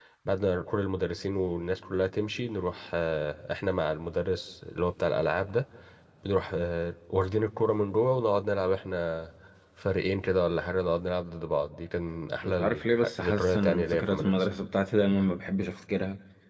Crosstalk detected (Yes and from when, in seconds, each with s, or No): Yes, from 12.4 s